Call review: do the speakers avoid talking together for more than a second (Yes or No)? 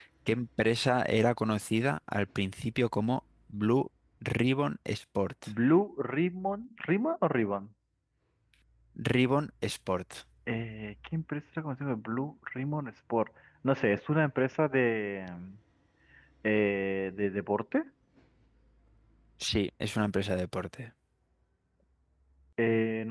Yes